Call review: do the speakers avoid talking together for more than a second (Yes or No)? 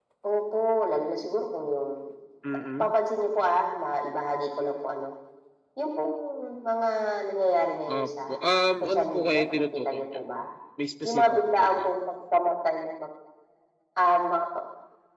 No